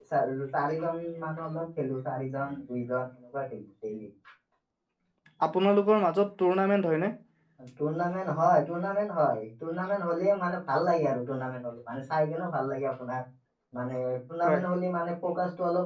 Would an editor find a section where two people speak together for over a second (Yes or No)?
No